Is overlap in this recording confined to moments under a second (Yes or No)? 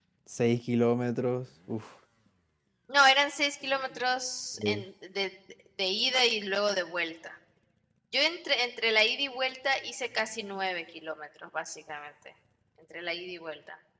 Yes